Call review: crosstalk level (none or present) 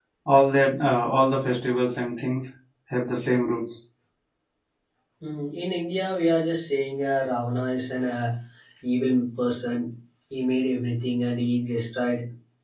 none